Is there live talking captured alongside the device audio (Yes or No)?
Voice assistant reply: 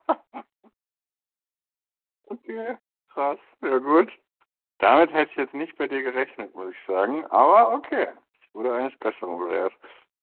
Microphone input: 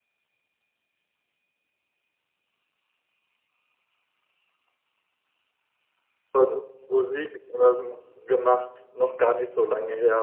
Yes